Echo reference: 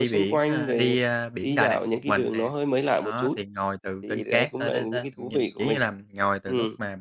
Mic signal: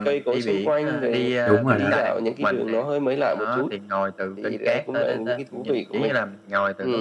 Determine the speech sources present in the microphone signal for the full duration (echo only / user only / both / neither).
both